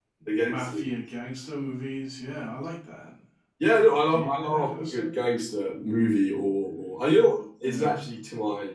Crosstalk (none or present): present